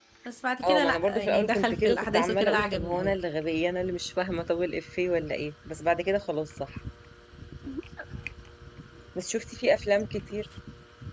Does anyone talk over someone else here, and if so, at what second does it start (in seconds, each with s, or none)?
0.7 s